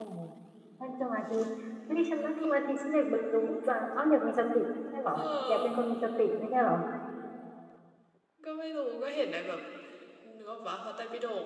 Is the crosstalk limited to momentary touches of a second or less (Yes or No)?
Yes